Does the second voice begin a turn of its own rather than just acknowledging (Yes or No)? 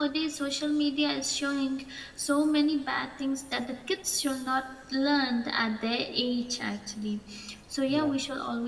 No